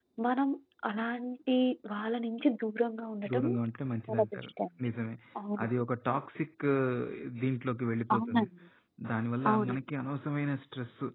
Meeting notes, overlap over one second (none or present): none